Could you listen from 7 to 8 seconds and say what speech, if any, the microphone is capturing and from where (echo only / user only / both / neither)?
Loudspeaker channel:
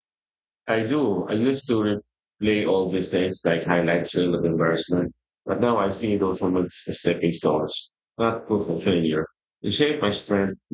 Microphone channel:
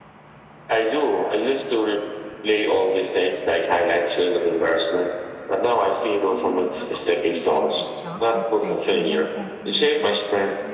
both